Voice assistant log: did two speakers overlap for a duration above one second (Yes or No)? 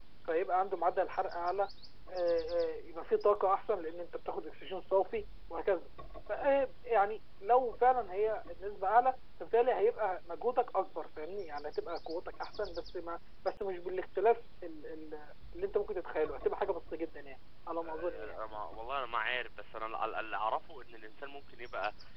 No